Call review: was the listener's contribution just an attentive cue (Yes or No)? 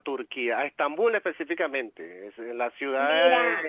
Yes